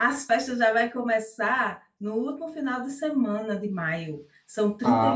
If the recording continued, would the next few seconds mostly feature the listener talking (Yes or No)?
Yes